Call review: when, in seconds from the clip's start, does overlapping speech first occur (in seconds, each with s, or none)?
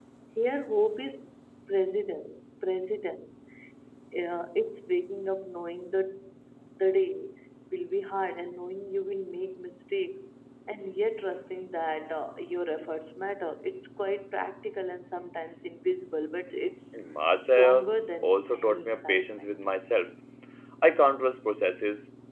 17.5 s